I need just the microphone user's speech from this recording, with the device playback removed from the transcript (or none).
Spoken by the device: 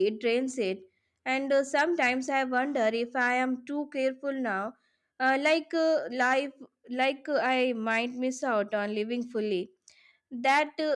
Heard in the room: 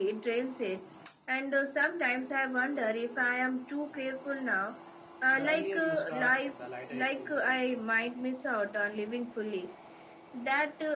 The earlier you start, the lighter it feels later.